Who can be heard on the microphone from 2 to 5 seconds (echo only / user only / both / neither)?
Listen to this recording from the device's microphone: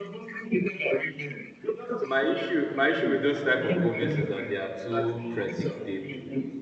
both